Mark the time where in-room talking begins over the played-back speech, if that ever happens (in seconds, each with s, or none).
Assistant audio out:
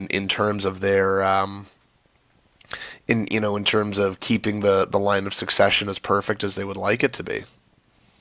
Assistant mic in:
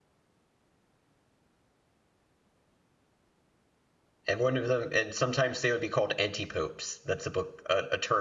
4.3 s